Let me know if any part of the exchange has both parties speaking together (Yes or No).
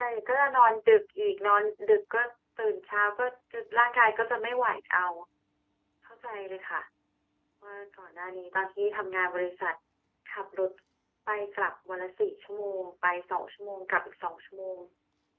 No